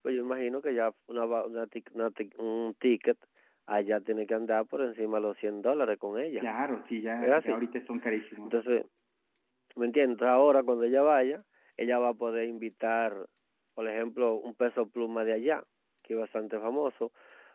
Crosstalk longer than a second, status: none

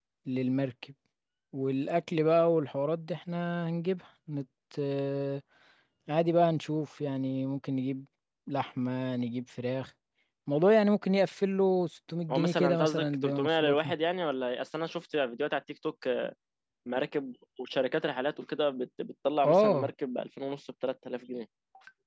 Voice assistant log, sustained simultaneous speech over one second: present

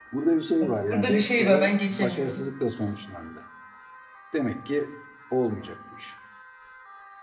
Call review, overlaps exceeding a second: present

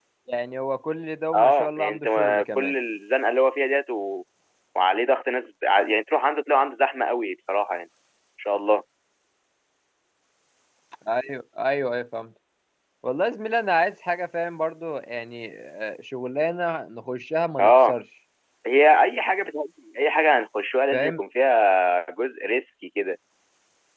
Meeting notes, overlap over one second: present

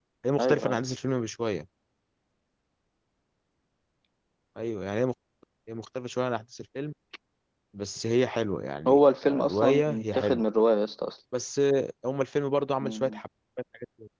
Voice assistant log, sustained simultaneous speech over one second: present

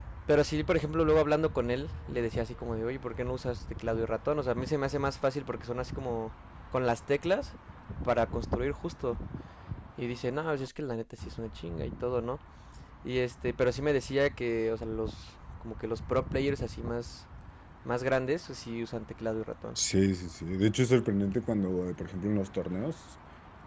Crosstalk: none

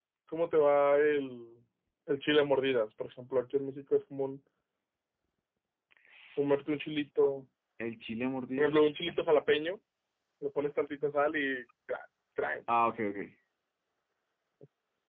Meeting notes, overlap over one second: none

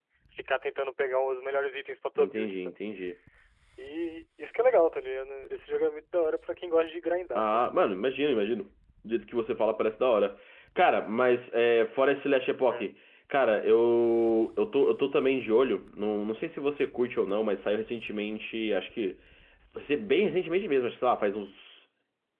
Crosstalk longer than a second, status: none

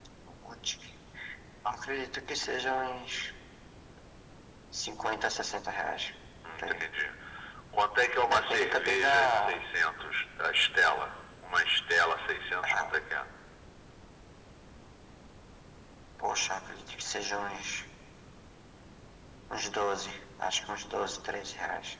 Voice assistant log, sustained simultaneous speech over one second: present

